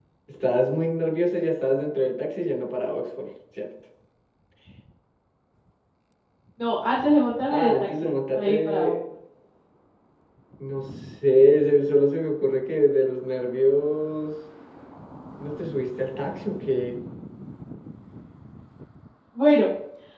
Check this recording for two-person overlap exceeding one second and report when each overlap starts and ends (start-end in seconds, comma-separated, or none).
7.5-8.9